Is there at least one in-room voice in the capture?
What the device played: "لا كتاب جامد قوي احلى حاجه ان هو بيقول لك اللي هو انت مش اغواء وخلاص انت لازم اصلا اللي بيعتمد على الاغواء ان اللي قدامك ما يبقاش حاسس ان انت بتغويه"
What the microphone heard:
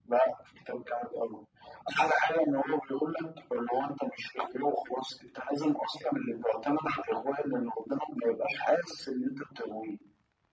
No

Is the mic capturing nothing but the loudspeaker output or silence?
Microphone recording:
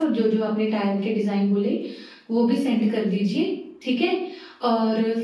No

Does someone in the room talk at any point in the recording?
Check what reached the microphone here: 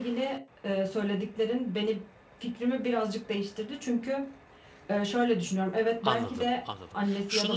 Yes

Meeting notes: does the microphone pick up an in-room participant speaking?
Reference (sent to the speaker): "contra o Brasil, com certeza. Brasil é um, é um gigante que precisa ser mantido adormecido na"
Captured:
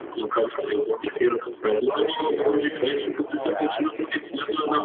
Yes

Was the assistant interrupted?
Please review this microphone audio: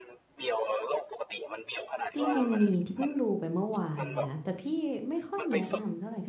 Yes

